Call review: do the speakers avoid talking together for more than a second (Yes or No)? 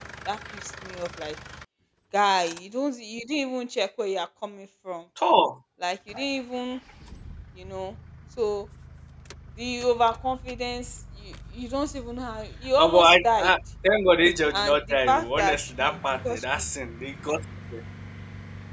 No